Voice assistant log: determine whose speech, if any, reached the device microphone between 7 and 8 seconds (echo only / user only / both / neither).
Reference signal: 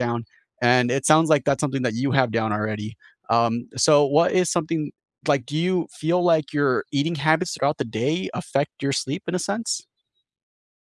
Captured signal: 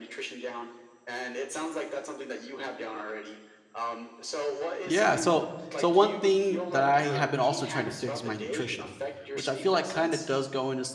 both